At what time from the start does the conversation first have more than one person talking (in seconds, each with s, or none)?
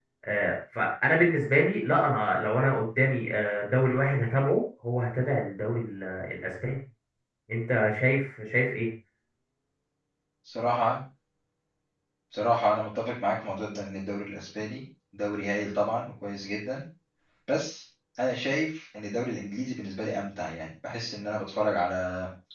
none